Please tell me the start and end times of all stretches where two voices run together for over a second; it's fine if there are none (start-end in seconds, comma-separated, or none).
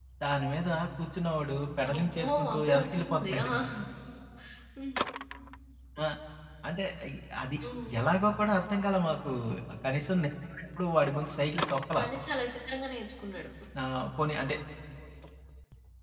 1.9-3.5